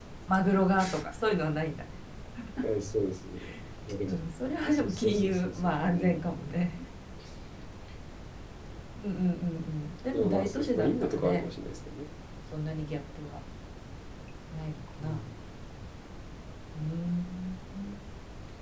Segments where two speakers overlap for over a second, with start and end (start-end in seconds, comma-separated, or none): 4.6-6.2, 10.1-11.4